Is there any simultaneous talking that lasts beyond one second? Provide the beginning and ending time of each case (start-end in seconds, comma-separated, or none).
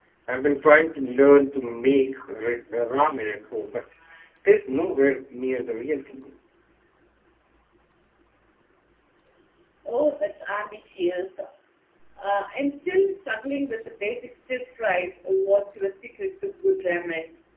none